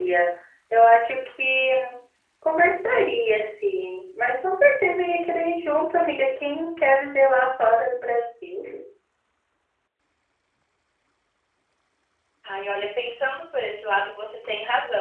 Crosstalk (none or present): none